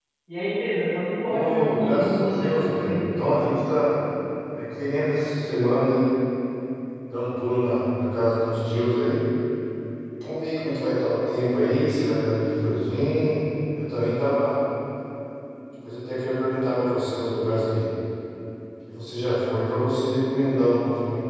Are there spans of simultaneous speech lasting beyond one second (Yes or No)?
Yes